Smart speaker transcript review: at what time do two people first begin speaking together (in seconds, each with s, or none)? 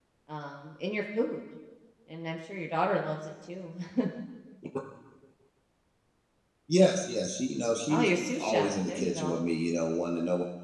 7.9 s